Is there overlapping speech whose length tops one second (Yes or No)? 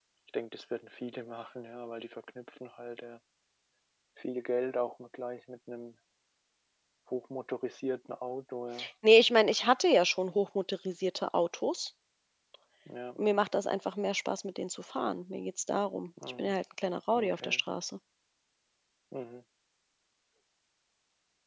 No